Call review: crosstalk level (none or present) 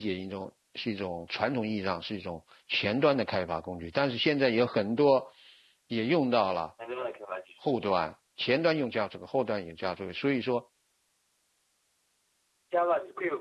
none